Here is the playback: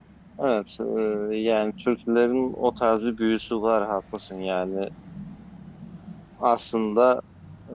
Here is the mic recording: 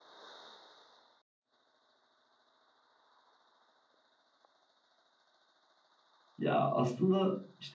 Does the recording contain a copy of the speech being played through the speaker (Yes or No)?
No